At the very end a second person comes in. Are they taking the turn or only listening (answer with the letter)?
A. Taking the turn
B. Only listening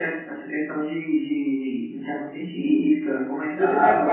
A